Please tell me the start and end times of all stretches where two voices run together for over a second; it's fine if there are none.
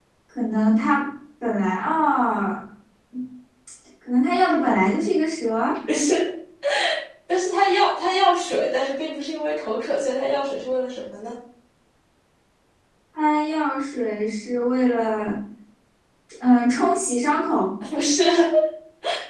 none

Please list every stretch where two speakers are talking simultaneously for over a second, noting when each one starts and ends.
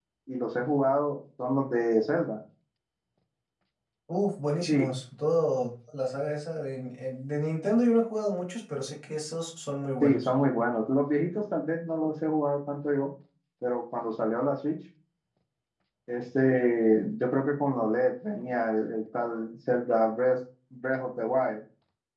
none

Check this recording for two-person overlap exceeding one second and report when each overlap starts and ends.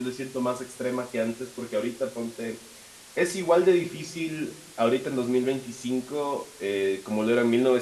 none

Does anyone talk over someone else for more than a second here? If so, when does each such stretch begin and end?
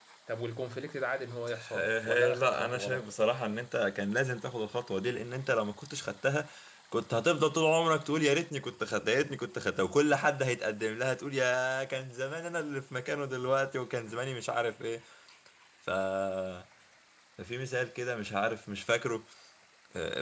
1.8-3.1

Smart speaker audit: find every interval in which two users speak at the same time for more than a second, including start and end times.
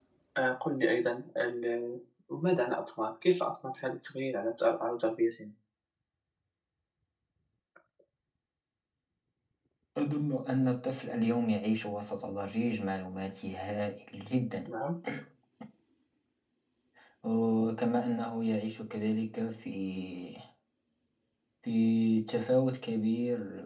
none

